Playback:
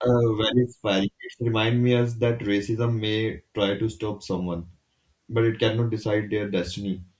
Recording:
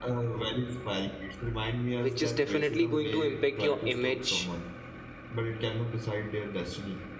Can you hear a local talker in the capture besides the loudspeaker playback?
Yes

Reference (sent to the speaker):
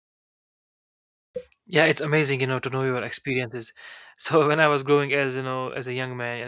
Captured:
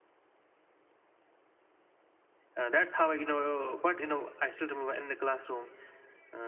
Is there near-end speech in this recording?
Yes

